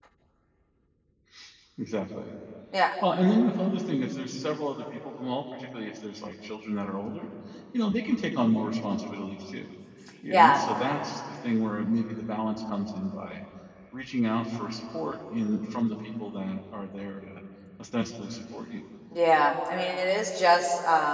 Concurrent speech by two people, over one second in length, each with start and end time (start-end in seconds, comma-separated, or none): none